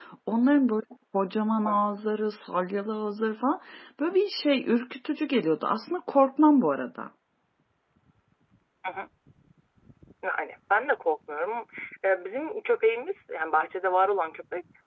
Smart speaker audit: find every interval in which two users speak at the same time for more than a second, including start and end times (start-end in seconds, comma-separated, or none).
none